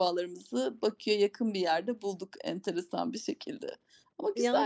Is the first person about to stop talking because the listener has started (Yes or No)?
Yes